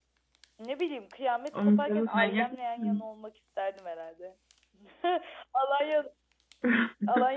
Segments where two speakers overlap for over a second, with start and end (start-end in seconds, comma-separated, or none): 1.5-3.0